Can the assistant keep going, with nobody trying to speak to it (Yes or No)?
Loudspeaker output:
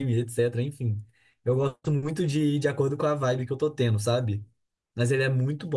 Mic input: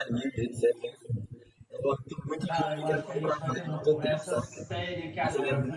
No